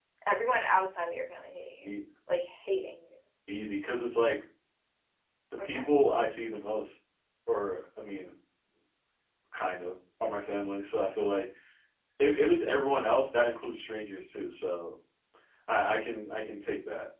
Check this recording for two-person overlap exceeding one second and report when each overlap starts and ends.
none

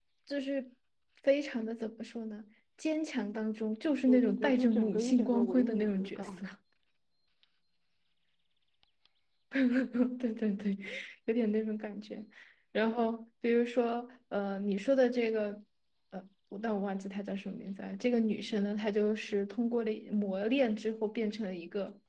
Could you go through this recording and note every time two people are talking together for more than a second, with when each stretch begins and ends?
4.1-6.4

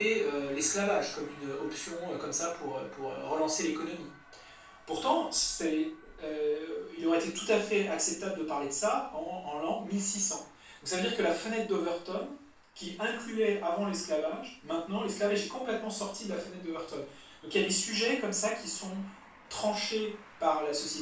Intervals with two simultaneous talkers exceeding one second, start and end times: none

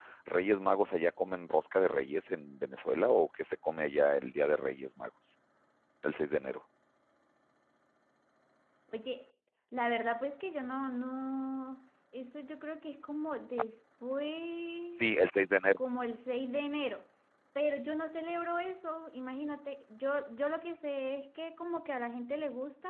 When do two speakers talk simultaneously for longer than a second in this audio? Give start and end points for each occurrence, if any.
none

